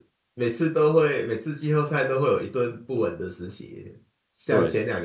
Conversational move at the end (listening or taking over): listening